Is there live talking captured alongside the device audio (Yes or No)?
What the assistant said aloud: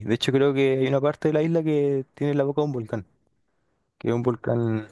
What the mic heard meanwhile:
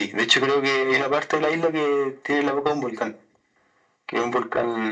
No